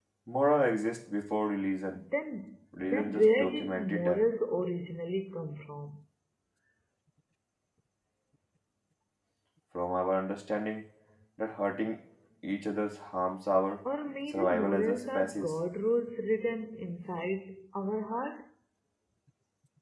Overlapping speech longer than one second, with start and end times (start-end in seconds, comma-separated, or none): 2.8-4.2, 14.3-15.5